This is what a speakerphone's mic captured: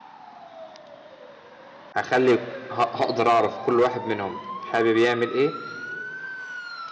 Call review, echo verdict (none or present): none